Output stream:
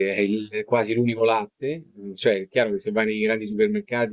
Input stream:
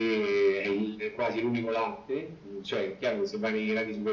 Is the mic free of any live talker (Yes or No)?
Yes